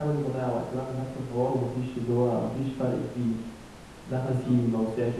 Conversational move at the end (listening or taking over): listening